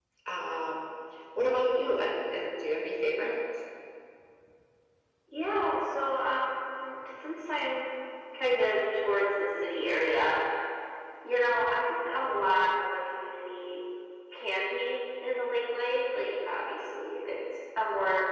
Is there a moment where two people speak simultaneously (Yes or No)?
No